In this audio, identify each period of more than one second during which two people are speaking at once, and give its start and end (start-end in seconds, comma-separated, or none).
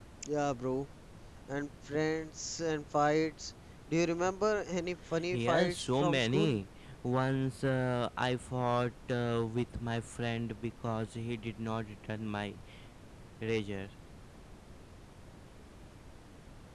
5.3-6.6